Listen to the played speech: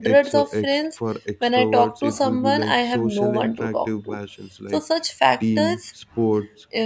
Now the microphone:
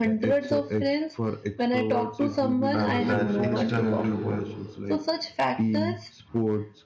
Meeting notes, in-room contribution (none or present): present